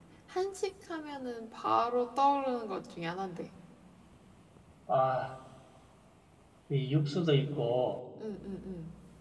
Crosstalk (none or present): none